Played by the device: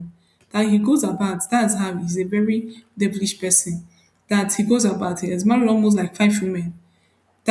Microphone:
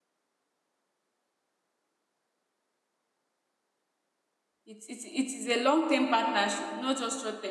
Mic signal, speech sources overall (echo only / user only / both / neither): user only